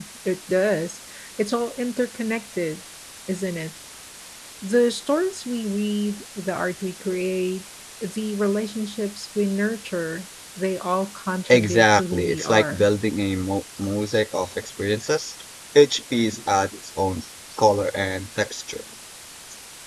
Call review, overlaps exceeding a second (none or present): present